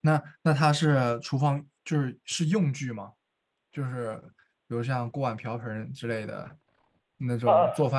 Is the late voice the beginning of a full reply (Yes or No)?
No